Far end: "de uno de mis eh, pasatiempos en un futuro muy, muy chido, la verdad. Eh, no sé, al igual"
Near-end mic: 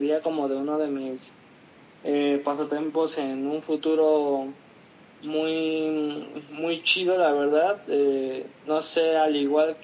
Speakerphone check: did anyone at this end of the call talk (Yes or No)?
No